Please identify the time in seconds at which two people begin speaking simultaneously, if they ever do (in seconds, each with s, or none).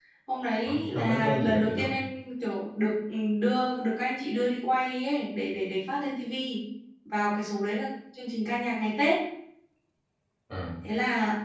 0.6 s